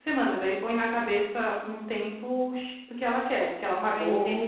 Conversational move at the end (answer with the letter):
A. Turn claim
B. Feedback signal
A